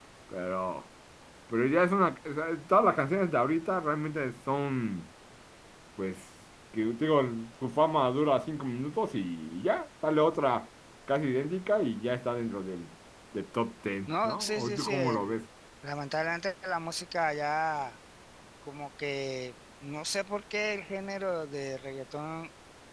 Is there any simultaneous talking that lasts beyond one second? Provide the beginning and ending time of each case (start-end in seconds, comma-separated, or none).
14.1-15.4